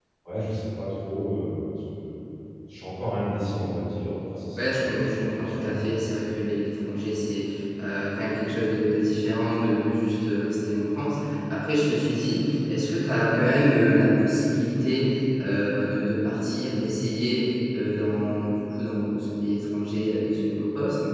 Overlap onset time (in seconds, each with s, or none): 4.6 s